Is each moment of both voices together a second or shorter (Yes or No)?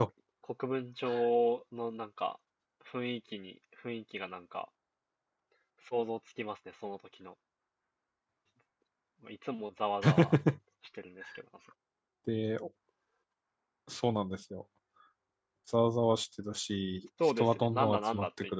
No